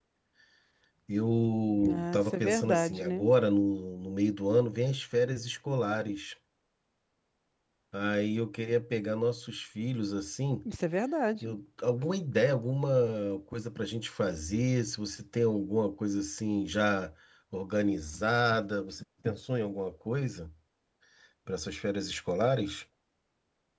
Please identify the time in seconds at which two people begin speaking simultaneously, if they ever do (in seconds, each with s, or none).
1.9 s